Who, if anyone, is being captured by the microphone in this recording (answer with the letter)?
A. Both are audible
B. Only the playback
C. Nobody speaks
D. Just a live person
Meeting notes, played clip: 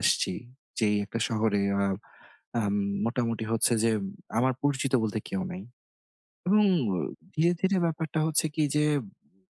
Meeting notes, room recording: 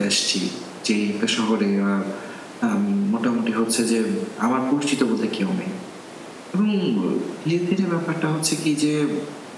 B